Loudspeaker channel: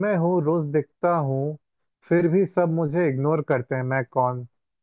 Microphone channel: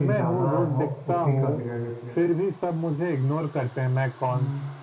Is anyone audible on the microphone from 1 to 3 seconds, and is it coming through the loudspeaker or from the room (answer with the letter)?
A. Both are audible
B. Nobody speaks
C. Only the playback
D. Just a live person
A